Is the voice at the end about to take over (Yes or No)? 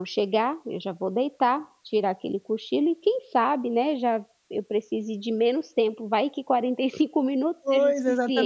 Yes